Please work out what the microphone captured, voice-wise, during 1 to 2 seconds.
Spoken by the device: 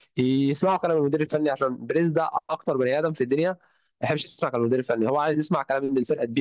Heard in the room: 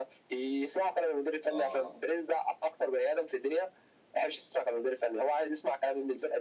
both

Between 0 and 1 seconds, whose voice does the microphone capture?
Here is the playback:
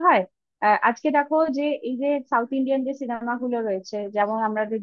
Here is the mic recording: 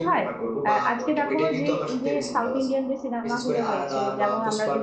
both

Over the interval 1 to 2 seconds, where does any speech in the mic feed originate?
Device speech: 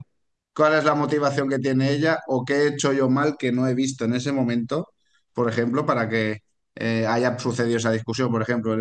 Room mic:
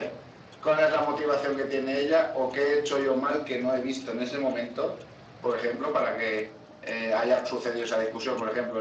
echo only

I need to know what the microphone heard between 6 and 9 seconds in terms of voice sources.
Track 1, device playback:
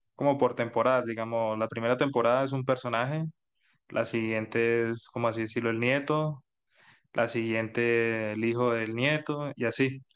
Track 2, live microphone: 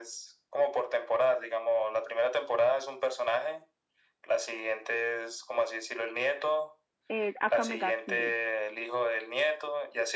both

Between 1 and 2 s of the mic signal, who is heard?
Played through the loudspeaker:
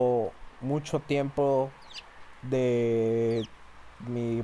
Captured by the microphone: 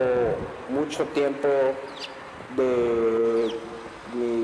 echo only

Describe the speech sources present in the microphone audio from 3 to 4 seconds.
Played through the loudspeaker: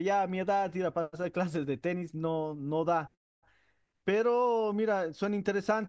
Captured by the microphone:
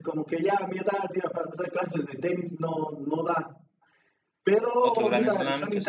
echo only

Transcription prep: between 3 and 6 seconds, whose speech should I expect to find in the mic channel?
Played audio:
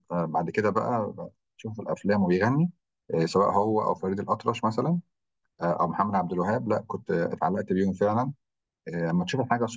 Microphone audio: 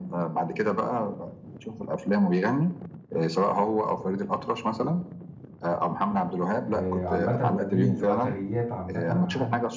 echo only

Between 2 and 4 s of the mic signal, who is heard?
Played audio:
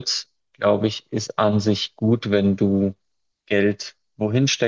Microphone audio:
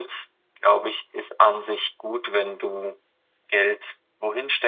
echo only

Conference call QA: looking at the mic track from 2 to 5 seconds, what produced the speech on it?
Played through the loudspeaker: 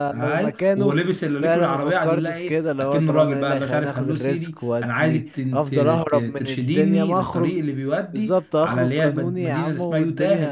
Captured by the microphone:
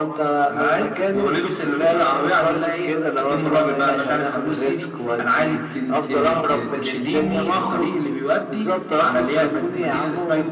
echo only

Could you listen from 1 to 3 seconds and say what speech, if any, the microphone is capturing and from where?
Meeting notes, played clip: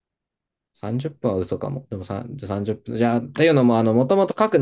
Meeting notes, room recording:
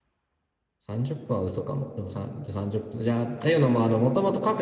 echo only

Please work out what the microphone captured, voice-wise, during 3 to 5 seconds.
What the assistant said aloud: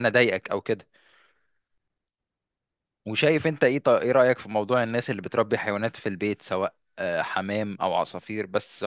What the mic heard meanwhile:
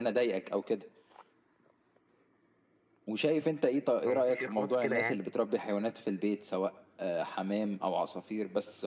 both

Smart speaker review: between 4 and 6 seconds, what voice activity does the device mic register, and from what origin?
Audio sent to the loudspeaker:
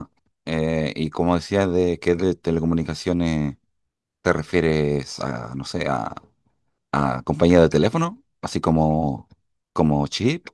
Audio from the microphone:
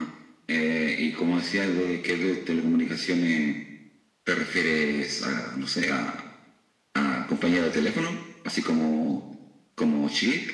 echo only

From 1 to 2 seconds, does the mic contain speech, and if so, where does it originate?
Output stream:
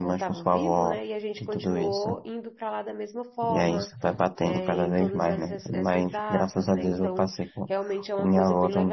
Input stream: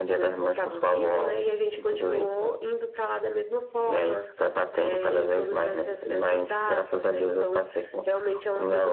echo only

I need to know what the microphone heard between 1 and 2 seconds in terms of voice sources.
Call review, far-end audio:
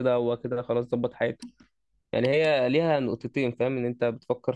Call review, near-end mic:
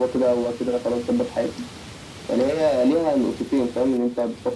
echo only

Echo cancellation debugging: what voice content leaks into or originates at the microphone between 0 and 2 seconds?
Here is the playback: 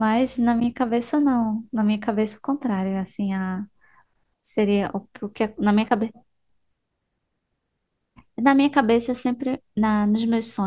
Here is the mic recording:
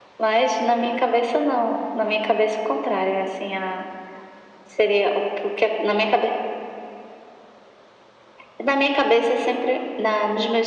echo only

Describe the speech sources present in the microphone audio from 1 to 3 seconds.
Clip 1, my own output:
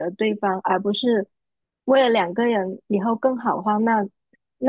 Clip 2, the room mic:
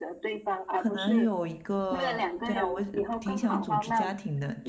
both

